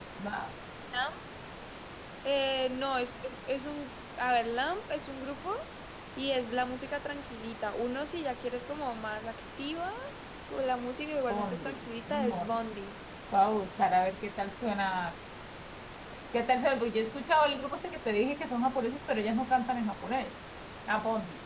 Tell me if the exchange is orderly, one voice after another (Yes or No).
No